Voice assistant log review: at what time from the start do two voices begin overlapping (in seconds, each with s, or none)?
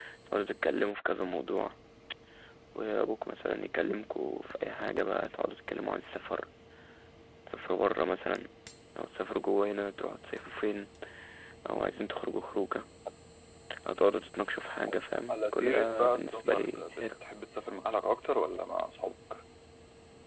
15.3 s